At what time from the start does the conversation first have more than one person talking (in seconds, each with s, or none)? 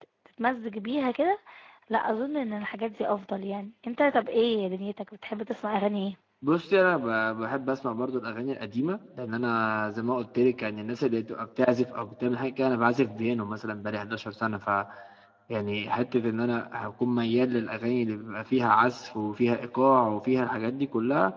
none